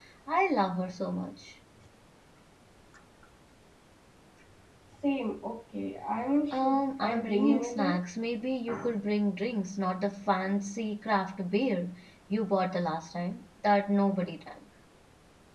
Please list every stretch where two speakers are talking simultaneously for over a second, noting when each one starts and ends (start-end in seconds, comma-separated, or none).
6.5-8.0